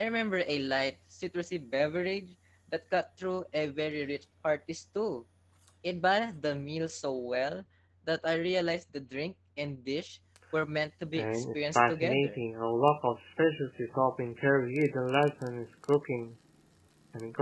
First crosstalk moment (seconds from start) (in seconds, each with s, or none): 11.1 s